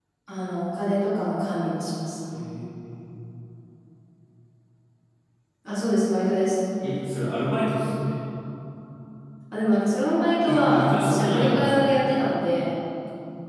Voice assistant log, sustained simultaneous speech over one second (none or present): present